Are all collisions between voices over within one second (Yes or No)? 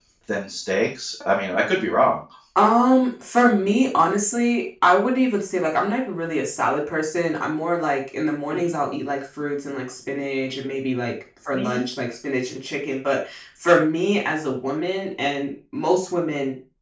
Yes